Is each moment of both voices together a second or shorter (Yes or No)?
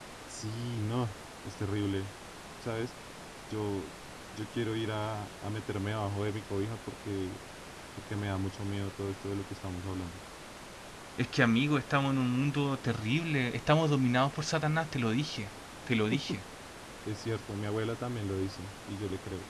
Yes